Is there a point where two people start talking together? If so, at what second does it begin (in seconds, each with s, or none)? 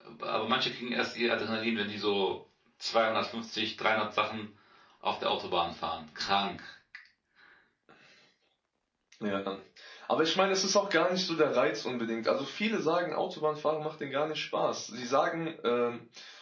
none